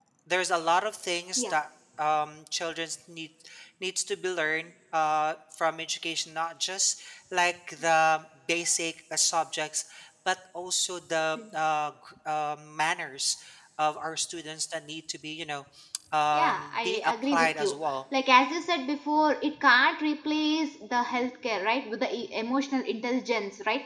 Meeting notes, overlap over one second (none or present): present